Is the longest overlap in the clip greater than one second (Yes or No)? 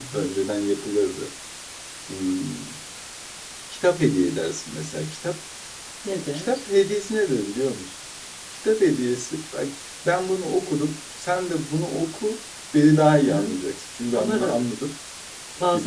No